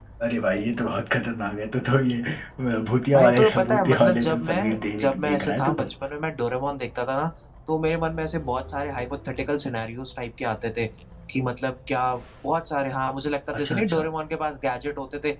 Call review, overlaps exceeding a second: present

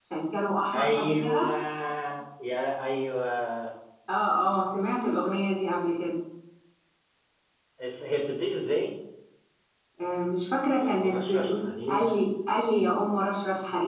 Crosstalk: present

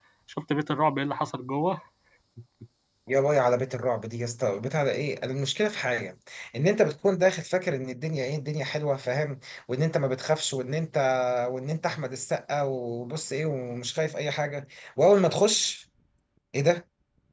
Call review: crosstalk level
none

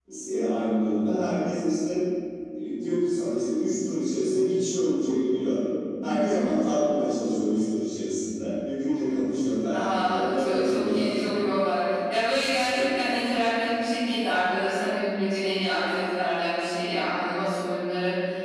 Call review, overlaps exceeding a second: present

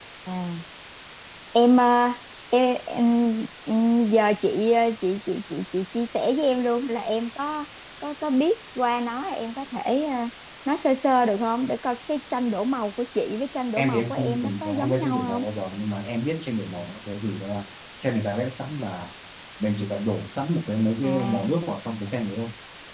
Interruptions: present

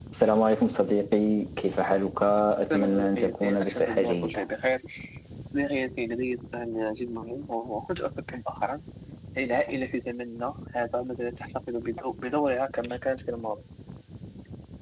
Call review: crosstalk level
present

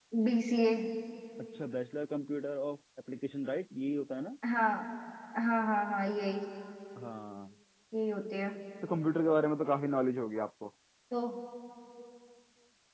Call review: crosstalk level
none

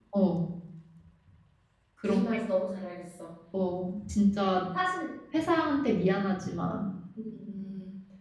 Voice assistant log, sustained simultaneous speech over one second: none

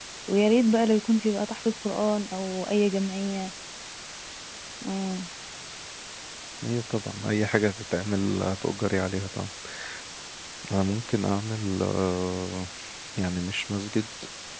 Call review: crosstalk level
none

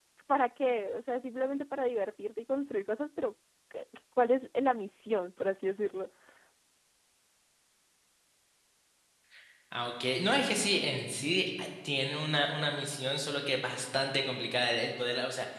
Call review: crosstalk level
none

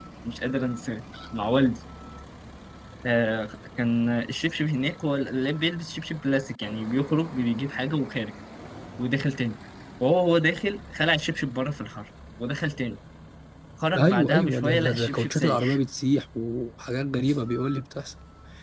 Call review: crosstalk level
present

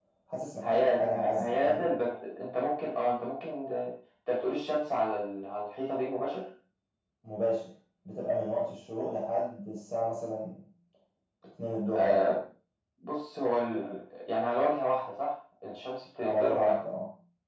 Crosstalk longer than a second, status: present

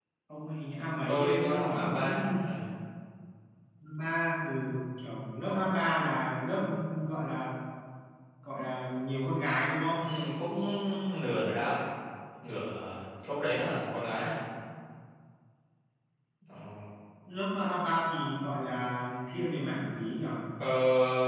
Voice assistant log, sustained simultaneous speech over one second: present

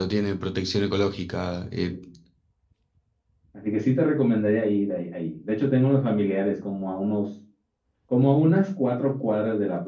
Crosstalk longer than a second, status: none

